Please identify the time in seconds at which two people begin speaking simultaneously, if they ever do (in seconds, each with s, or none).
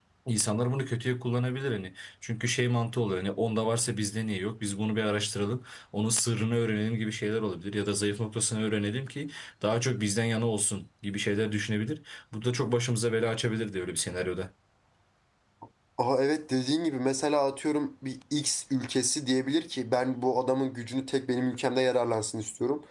none